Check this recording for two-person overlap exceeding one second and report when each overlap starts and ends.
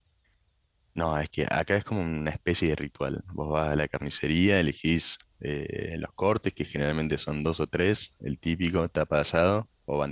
none

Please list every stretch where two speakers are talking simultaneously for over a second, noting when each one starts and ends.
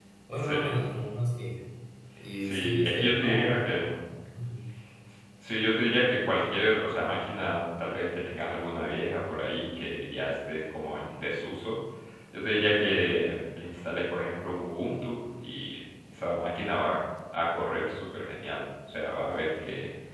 2.4-3.8

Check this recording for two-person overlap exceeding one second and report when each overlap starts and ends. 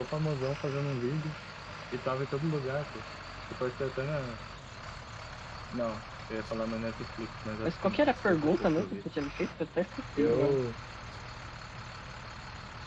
7.6-8.8

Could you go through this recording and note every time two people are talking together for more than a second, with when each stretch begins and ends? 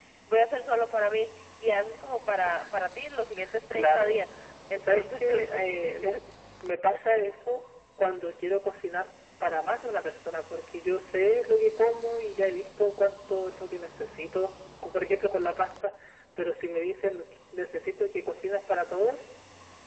4.7-6.2

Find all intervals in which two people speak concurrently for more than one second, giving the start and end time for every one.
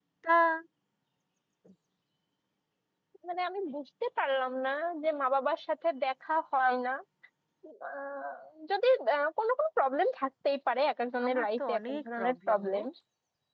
11.2-12.8

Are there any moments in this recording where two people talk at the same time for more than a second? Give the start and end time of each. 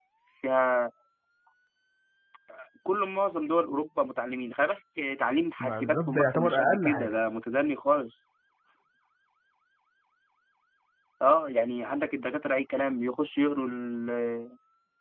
5.6-7.2

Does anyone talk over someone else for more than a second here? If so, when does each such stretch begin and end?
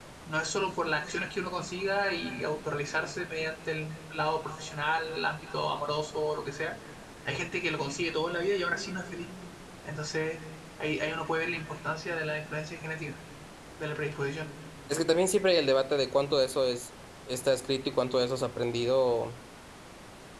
none

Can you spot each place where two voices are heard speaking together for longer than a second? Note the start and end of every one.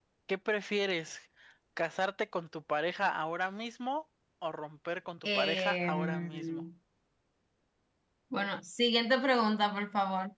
5.2-6.6

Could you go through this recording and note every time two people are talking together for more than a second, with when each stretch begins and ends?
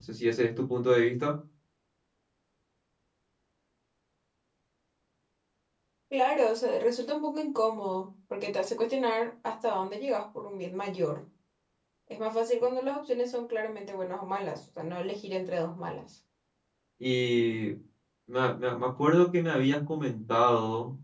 none

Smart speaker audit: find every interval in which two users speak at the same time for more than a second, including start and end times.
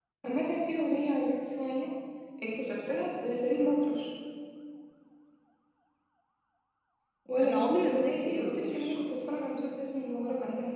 7.4-9.0

